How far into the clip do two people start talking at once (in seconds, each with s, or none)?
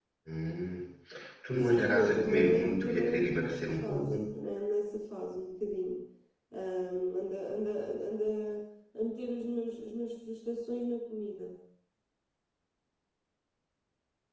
1.6 s